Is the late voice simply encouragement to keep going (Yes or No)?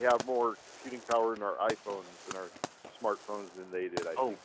No